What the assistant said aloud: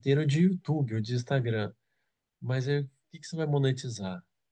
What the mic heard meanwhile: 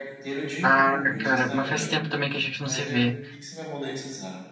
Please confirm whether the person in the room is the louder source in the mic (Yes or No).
Yes